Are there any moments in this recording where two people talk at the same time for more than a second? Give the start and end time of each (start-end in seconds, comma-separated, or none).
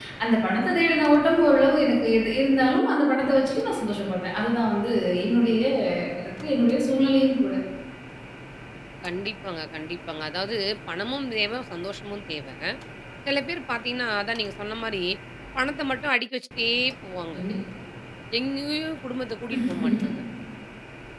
none